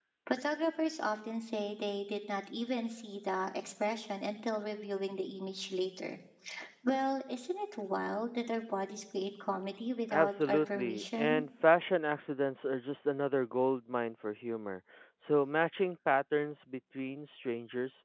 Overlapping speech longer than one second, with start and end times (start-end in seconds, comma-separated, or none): 10.1-11.4